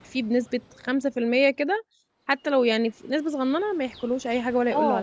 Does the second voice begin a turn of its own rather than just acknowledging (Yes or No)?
Yes